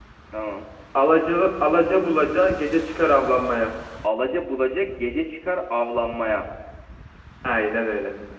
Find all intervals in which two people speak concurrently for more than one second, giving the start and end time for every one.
none

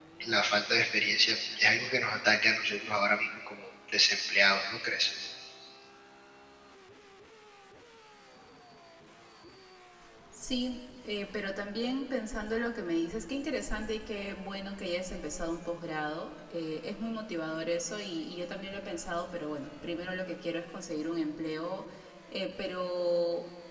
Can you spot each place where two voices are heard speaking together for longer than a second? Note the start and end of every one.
none

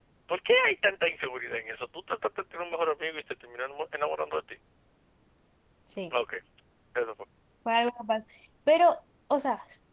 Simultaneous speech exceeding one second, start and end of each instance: none

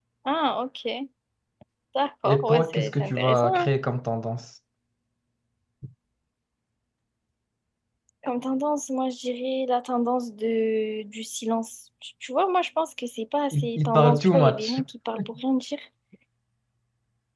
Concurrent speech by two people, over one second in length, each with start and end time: 2.2-3.7, 13.5-14.8

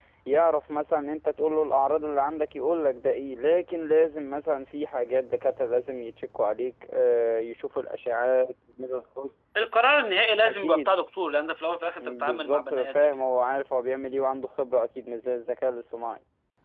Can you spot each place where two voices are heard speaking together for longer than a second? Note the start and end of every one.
12.0-13.2

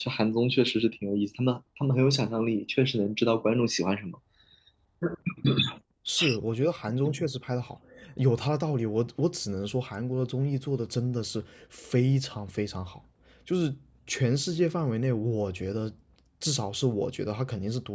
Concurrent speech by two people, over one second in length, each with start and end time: none

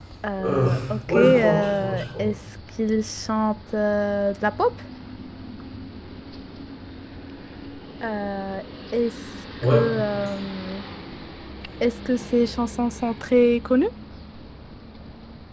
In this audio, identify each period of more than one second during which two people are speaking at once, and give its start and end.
1.1-2.3

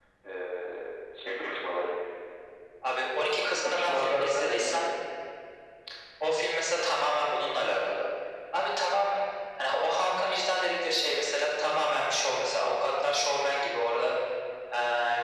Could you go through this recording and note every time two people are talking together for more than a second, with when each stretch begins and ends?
3.6-4.9

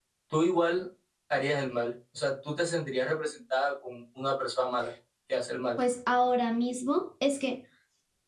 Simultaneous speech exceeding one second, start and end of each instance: none

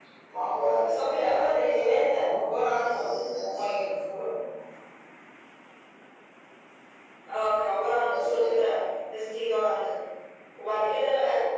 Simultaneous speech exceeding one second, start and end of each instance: 0.9-2.1

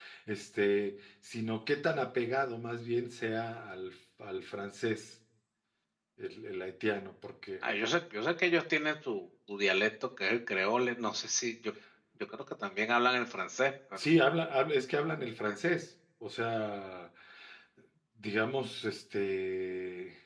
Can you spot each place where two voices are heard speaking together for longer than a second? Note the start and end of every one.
none

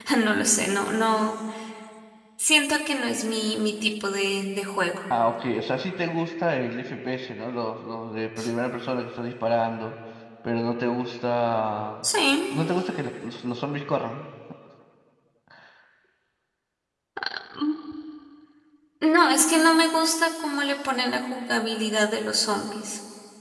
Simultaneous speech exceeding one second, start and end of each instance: none

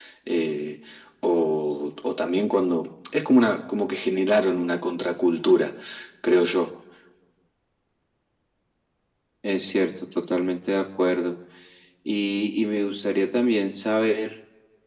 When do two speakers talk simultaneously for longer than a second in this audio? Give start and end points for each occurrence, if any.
none

